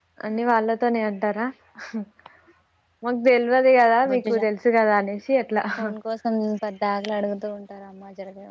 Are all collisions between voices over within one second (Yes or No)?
Yes